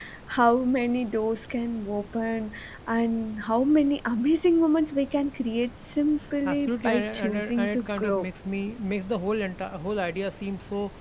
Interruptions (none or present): present